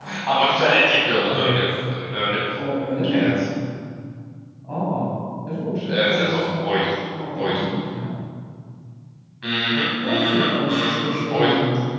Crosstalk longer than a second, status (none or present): present